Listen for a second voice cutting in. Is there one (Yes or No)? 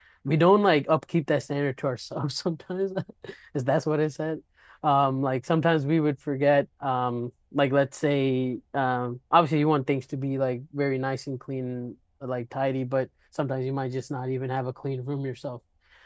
No